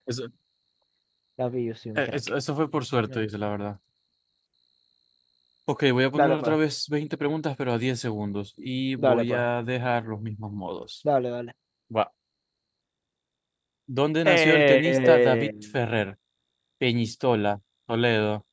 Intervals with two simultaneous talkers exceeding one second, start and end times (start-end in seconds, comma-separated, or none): 14.2-15.5